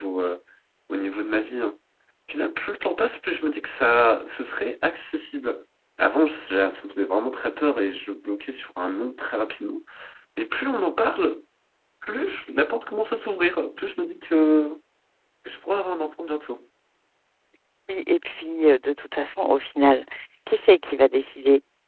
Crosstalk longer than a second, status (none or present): none